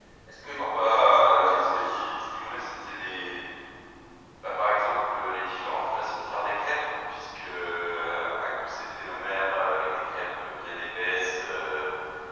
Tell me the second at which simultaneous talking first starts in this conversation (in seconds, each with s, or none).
0.6 s